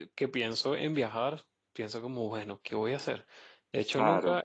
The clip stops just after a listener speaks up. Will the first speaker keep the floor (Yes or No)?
Yes